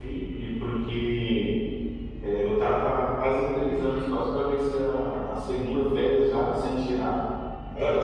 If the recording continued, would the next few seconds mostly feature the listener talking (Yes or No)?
No